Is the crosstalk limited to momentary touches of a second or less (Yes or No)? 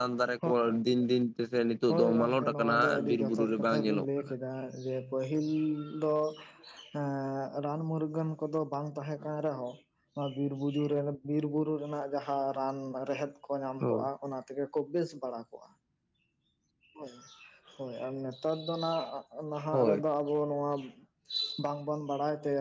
No